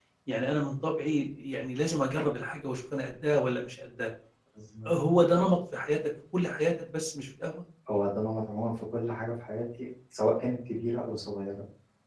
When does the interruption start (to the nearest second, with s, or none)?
none